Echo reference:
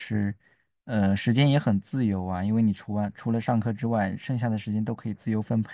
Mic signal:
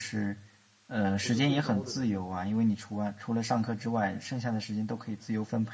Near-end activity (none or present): present